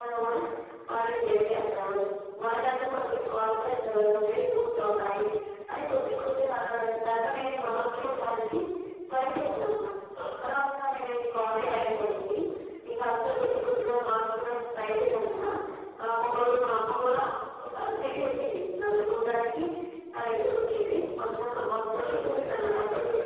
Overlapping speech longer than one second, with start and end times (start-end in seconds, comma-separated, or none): none